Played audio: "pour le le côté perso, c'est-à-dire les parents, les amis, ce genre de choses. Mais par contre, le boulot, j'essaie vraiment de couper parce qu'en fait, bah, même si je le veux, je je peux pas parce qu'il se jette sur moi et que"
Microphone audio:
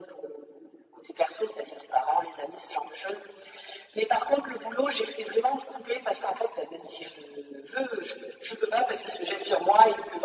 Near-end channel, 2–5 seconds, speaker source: echo only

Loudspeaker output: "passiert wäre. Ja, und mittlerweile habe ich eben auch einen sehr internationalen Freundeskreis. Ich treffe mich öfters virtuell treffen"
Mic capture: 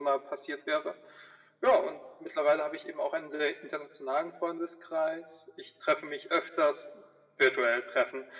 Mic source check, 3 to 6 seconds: echo only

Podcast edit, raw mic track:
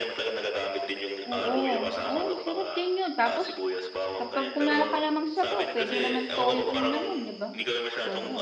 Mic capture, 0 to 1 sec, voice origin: echo only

